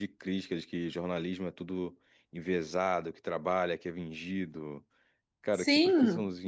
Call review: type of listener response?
taking over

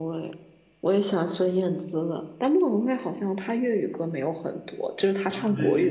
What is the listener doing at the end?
taking over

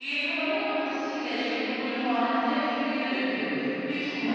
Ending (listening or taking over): listening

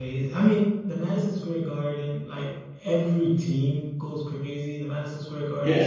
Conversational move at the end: taking over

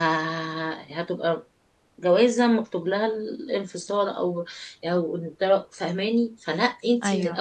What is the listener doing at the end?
listening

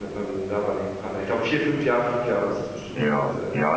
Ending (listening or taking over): taking over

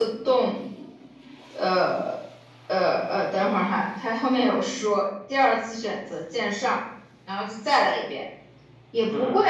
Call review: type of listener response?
listening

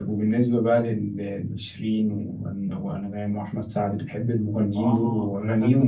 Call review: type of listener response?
taking over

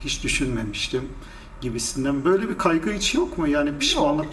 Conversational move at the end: taking over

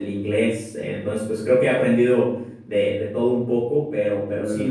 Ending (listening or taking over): listening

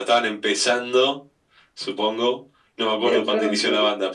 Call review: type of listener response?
listening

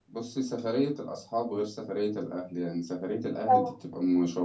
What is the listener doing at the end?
listening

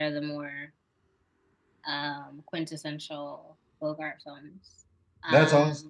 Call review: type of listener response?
taking over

